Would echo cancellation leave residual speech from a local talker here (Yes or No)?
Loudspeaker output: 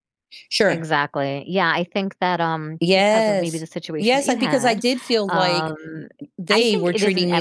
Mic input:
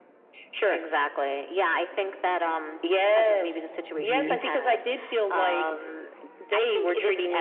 Yes